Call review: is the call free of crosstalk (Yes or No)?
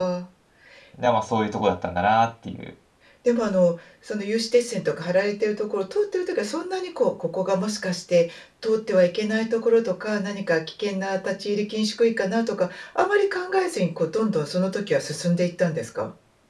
Yes